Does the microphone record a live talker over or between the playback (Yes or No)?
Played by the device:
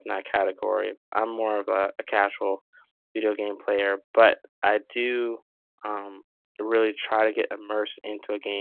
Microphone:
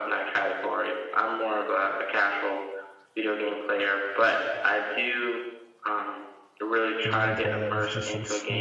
Yes